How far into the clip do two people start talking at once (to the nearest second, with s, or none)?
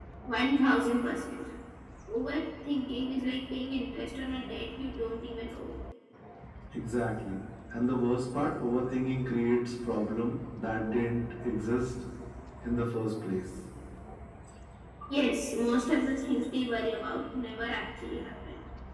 none